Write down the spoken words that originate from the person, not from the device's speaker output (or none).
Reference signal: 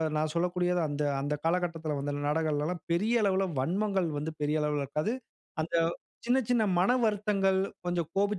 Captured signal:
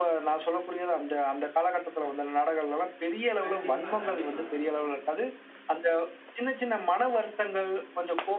கண்டிப்பா, கண்டிப்பாங்க.